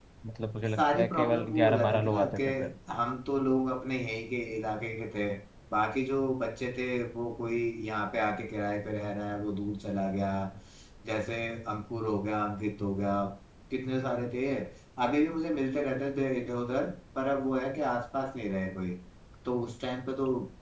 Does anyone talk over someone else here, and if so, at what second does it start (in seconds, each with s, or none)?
0.8 s